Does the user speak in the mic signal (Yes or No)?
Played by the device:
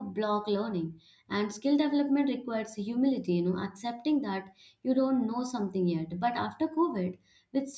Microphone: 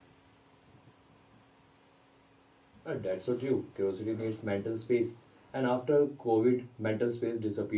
Yes